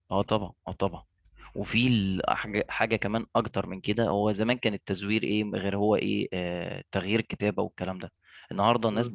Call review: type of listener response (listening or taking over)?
listening